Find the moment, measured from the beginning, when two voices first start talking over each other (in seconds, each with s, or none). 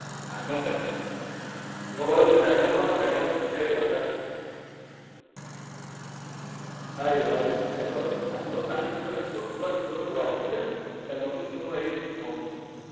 2.0 s